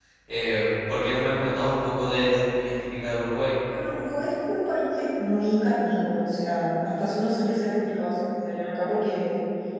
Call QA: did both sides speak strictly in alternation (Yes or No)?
Yes